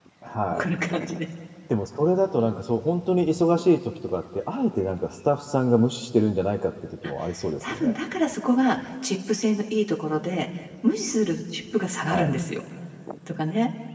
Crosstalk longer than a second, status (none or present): none